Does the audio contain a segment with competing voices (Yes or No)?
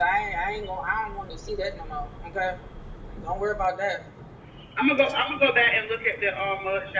No